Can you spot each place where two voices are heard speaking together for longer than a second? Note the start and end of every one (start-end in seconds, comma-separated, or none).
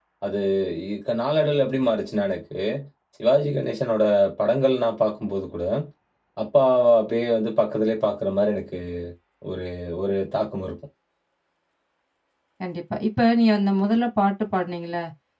none